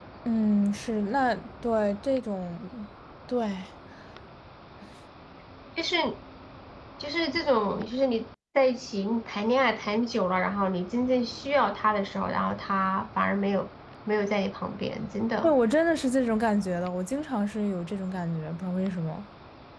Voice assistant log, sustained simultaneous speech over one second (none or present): none